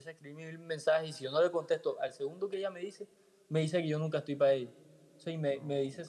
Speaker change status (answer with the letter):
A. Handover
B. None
B